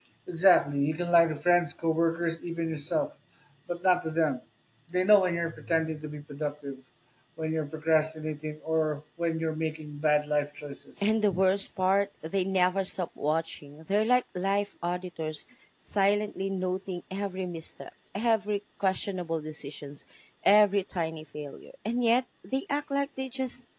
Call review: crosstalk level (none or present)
none